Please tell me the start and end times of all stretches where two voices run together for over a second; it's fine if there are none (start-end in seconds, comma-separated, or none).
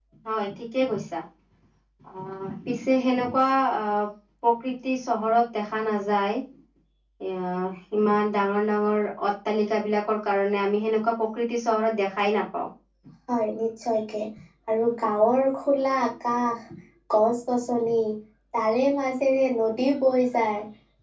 none